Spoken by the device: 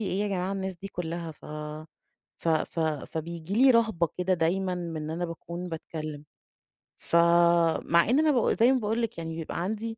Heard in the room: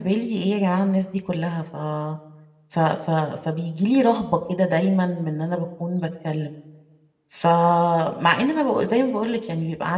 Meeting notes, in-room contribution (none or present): none